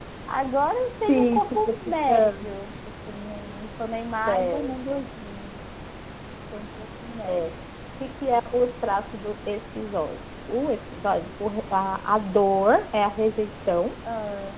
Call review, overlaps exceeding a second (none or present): present